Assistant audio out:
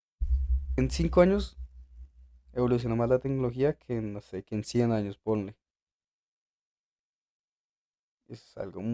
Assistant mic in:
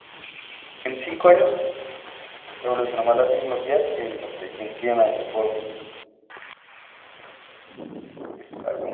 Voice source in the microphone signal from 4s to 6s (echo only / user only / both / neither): echo only